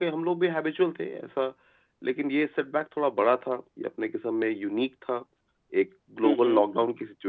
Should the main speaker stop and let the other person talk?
No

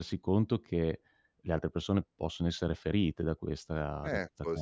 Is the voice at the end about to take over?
Yes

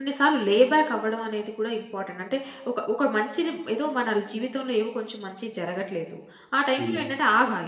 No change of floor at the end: Yes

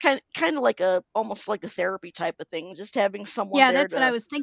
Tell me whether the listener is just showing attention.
No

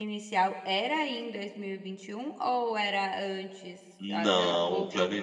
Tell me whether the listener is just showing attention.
No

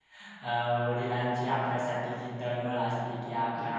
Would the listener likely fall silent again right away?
Yes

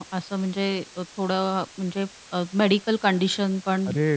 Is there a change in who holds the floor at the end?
Yes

